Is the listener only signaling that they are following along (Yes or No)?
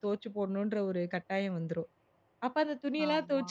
Yes